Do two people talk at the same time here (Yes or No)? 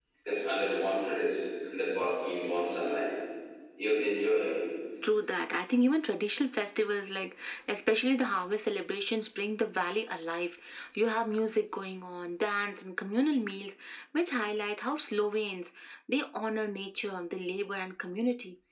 No